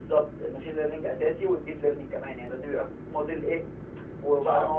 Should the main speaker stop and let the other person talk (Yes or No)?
No